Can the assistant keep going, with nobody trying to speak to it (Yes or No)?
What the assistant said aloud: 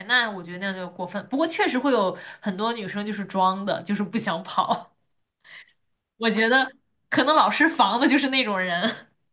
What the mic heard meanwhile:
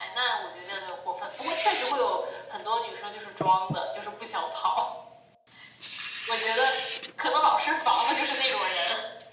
Yes